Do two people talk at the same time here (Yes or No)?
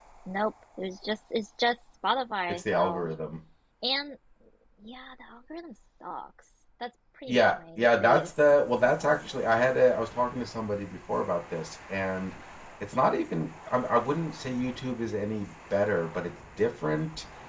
Yes